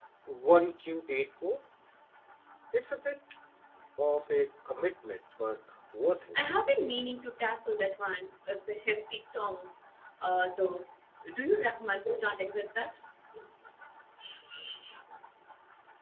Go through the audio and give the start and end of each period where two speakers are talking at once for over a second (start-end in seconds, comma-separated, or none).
none